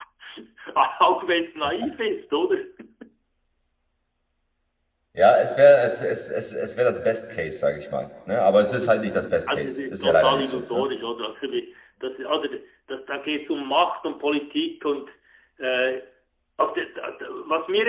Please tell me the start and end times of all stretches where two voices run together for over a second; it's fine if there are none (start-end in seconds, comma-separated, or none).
9.5-10.8